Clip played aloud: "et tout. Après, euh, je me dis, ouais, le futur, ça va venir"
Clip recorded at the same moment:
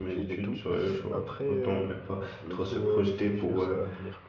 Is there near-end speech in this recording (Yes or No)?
Yes